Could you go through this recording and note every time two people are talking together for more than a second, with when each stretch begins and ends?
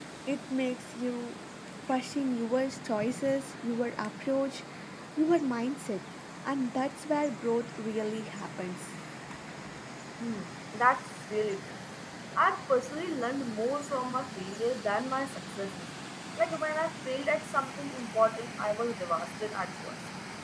none

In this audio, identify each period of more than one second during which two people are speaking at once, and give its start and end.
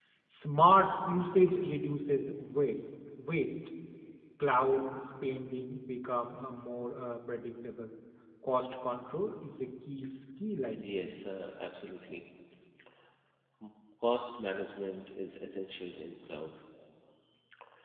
none

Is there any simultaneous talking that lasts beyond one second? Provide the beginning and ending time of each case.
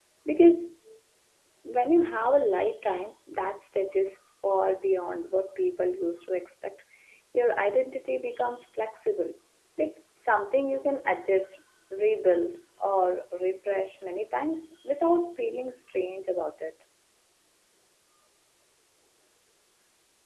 none

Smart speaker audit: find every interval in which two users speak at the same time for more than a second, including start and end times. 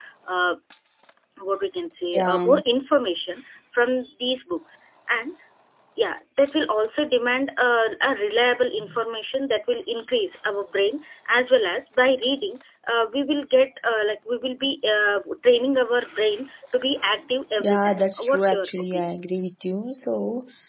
17.6-19.0

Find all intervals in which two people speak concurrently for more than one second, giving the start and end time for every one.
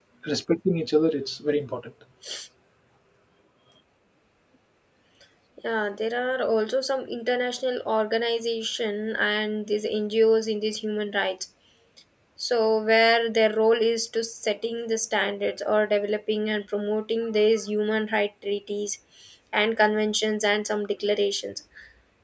none

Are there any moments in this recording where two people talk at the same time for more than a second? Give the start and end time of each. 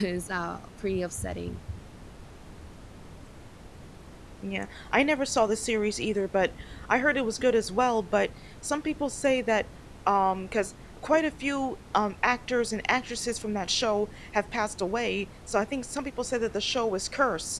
none

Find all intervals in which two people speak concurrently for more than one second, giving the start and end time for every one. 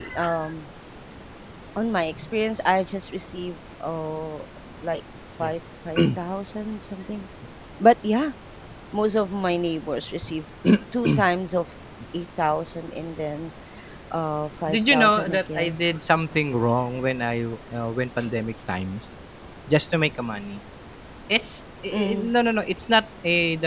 14.7-16.0

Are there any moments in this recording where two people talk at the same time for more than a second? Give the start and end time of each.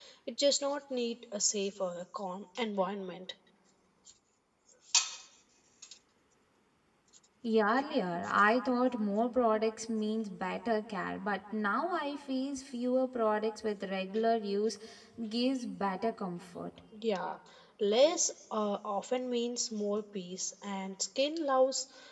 none

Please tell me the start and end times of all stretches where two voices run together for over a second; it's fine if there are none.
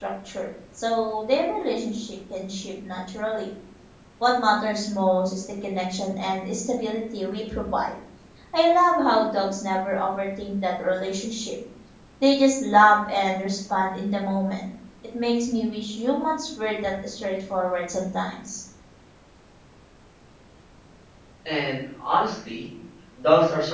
none

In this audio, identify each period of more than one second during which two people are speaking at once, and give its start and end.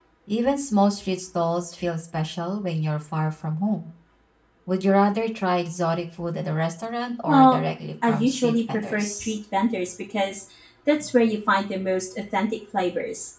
8.1-9.4

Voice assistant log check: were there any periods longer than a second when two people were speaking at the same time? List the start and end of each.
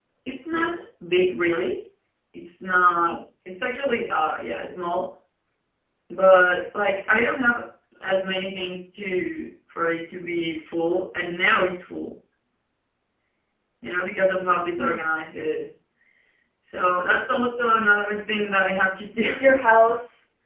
none

